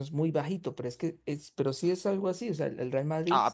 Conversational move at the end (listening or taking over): taking over